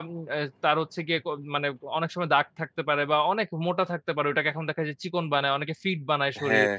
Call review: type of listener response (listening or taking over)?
taking over